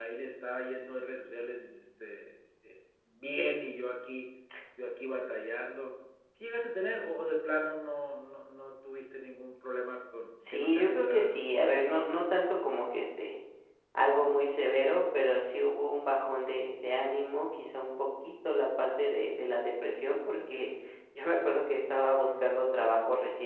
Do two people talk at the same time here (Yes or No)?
Yes